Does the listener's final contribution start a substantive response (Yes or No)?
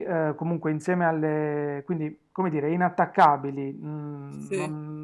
No